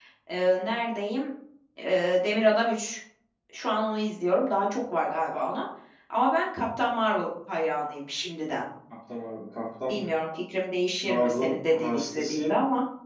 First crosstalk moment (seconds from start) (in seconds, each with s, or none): 11.0 s